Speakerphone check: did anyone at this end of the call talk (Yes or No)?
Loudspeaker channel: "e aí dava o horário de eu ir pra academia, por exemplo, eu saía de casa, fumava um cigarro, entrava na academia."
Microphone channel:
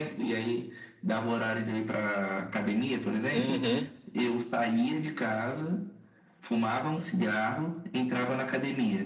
Yes